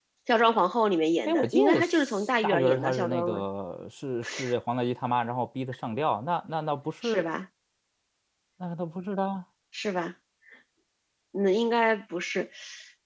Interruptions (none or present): present